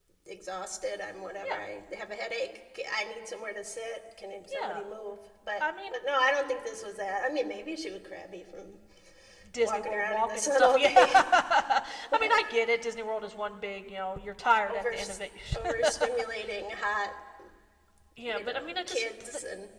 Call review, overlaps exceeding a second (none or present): present